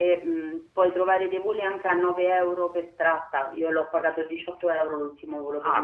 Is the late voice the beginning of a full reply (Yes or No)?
Yes